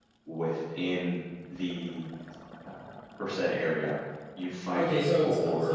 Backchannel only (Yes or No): No